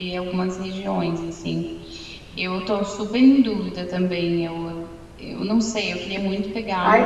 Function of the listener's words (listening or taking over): taking over